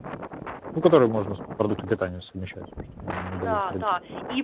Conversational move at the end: taking over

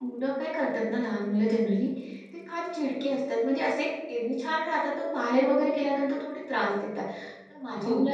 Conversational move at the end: listening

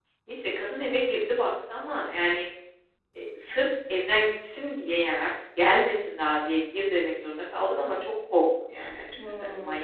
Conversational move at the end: taking over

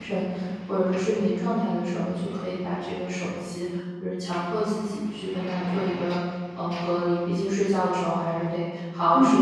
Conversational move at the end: taking over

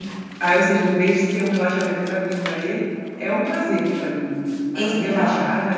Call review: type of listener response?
listening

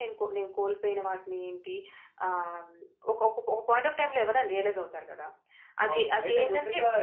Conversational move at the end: taking over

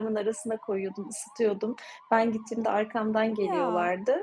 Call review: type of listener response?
listening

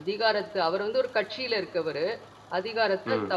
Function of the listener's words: listening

